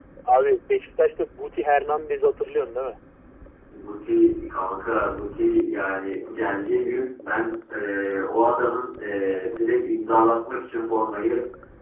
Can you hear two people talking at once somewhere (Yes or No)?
No